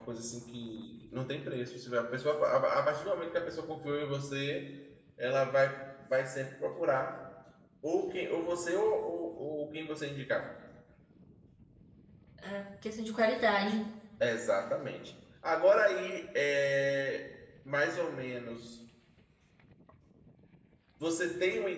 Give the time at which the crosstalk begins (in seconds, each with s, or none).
none